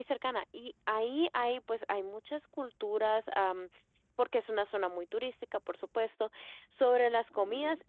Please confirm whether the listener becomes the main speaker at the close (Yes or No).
No